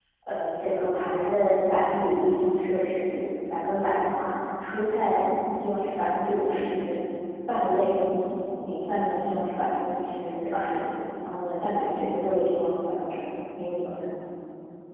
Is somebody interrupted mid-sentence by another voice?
No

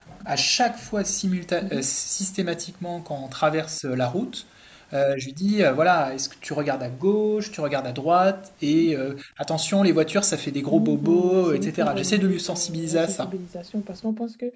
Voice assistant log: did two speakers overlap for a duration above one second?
Yes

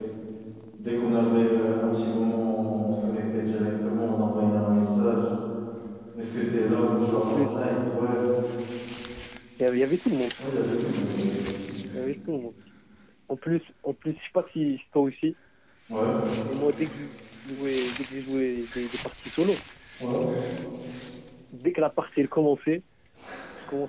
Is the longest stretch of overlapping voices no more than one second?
Yes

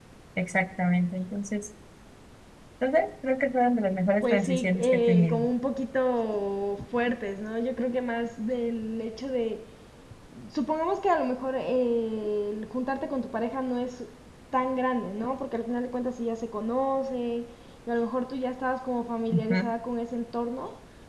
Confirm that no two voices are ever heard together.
No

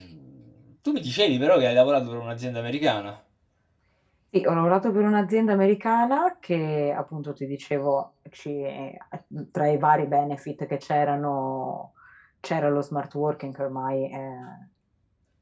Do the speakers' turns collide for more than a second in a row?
No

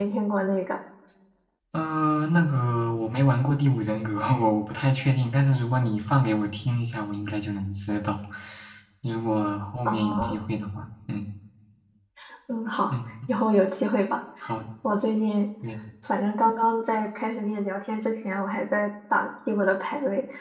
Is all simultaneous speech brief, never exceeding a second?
Yes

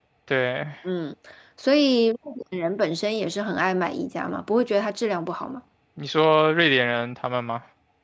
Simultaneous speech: No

